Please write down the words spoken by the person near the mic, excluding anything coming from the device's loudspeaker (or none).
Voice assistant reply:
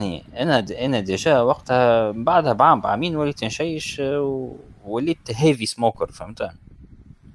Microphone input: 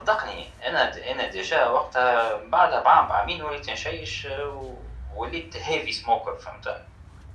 none